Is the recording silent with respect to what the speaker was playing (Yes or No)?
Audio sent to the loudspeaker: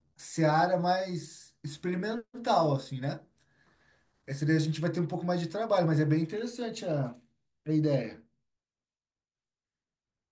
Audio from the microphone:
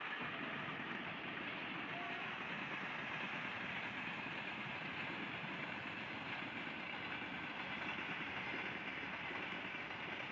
Yes